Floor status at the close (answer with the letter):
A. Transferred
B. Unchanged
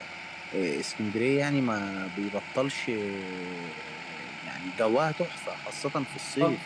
B